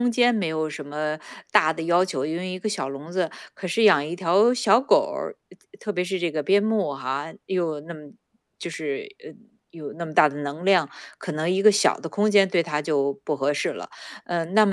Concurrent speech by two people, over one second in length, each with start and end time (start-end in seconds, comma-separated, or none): none